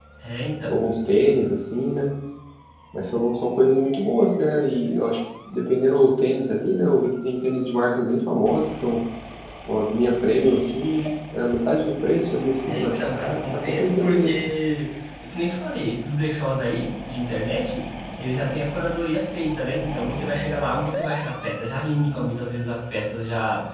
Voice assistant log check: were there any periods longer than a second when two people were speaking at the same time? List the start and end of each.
12.7-14.4

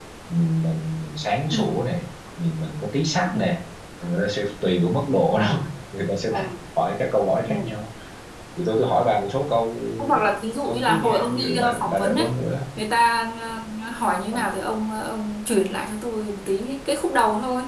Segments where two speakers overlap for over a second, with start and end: 10.6-12.3

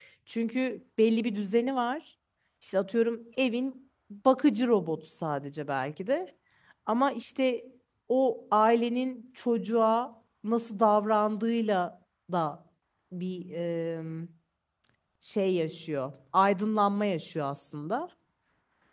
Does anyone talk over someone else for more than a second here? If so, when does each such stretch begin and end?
none

